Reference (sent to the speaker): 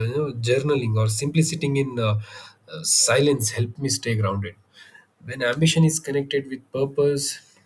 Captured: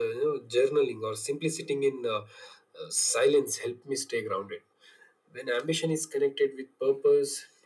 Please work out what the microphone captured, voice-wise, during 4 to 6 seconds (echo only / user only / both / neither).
echo only